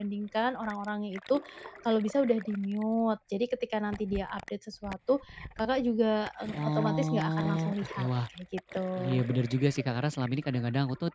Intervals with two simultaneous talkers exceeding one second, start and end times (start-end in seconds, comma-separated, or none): 6.6-8.1